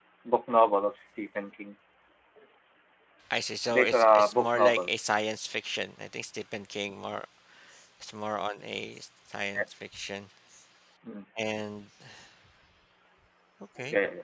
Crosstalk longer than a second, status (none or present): present